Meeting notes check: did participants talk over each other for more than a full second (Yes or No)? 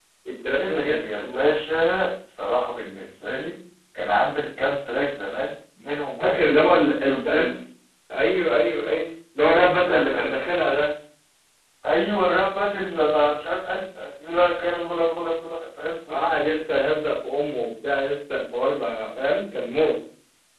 Yes